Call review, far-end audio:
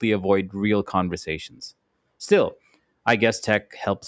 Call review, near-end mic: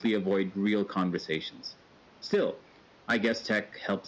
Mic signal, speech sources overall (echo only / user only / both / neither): echo only